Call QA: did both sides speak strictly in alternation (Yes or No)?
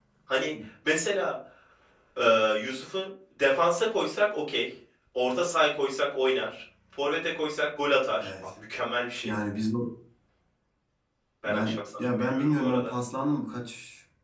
No